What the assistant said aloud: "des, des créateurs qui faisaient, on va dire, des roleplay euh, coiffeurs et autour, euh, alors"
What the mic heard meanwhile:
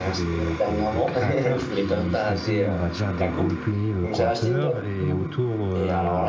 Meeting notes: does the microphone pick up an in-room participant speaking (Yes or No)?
Yes